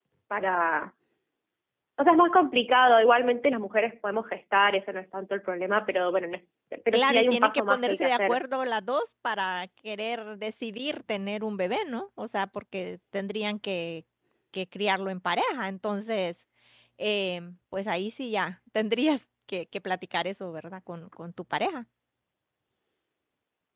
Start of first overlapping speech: 6.9 s

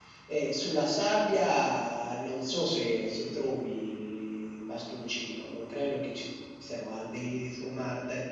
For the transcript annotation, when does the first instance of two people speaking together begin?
none

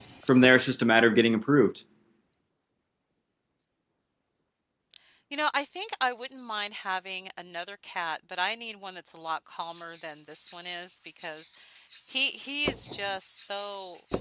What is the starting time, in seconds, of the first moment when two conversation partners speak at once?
none

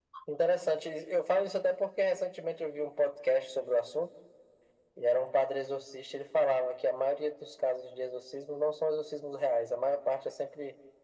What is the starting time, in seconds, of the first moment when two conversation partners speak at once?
none

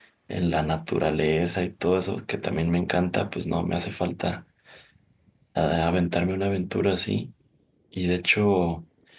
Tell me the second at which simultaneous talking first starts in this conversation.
none

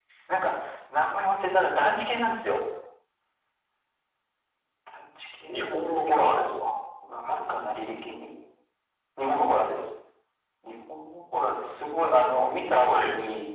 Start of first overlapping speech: 5.5 s

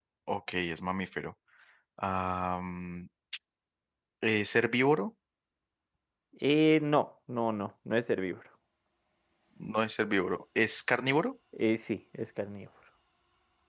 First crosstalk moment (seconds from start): none

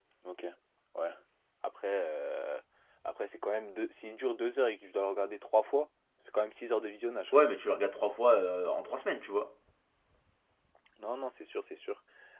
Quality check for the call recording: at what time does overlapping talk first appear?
none

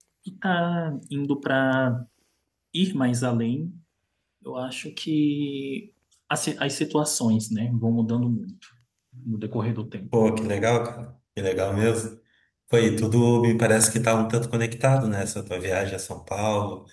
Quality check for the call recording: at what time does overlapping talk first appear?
none

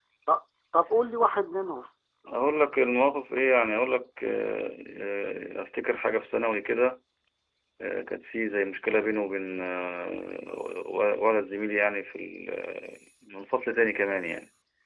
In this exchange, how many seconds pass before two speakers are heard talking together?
none

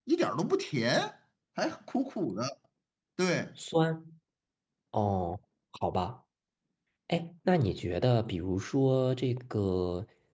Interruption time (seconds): none

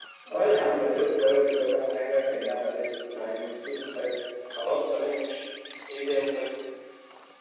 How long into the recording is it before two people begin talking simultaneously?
none

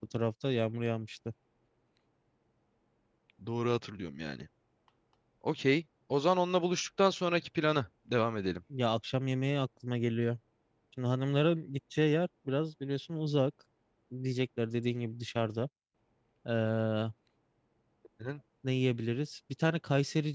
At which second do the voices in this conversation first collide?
none

